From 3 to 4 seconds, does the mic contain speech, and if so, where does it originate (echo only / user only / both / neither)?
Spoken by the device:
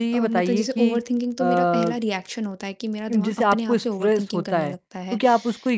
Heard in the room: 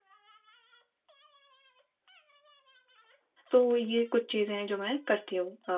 user only